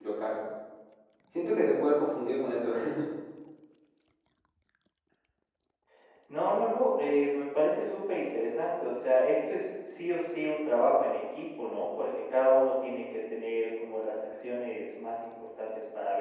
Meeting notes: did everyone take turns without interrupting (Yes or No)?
Yes